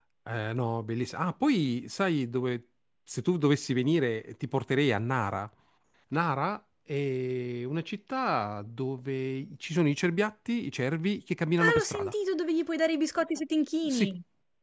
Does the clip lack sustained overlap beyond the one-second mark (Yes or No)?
Yes